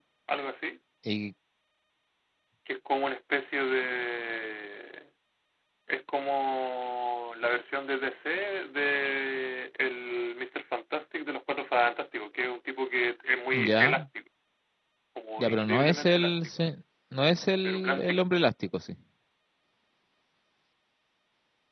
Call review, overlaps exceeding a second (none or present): present